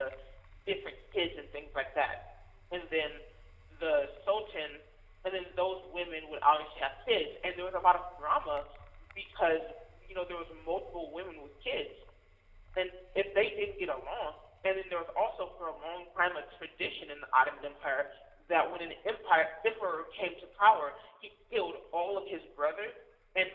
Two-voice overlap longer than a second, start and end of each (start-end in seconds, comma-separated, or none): none